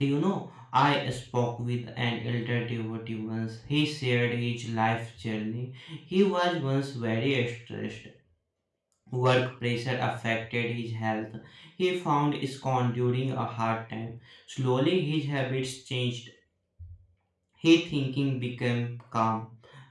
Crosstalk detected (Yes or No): No